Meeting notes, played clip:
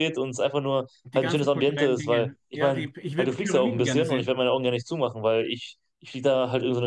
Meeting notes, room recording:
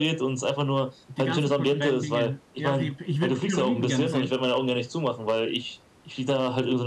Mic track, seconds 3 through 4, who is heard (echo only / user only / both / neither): echo only